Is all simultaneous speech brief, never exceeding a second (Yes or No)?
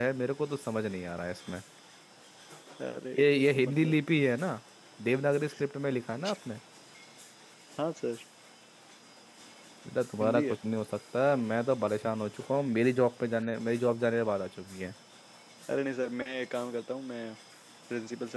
Yes